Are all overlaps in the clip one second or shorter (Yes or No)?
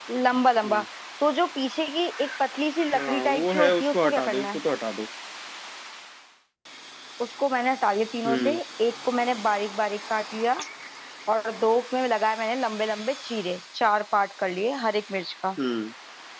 No